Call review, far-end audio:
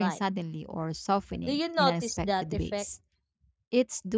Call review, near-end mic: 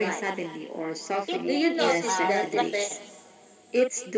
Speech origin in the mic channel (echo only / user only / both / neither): both